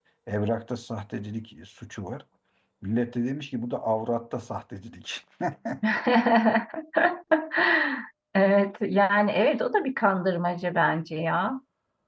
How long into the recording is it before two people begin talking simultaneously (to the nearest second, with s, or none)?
none